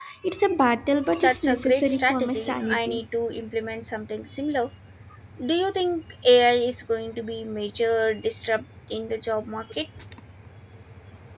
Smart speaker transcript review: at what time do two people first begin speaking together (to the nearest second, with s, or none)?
1 s